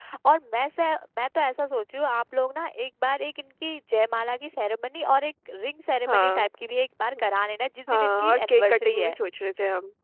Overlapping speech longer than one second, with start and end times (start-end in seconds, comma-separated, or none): 7.9-9.2